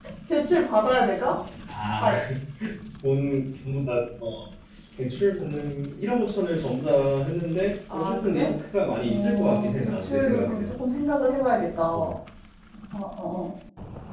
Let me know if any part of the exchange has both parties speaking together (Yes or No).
Yes